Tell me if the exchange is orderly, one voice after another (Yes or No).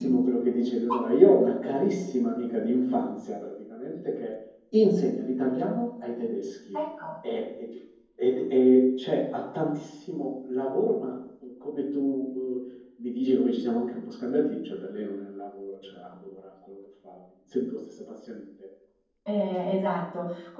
Yes